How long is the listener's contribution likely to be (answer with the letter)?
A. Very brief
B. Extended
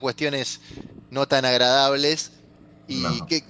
A